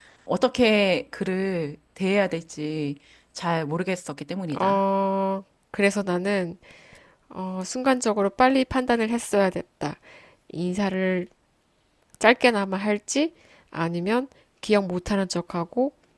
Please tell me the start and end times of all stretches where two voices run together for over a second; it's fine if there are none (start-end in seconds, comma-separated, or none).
none